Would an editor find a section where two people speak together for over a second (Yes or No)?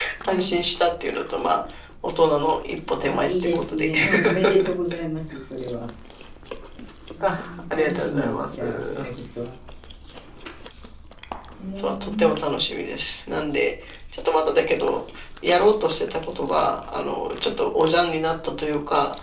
Yes